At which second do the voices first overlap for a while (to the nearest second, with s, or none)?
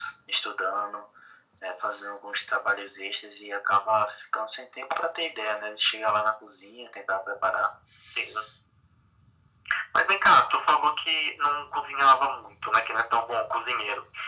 none